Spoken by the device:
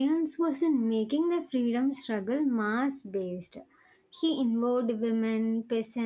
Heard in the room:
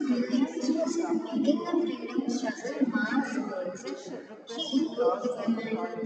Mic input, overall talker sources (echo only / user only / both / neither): both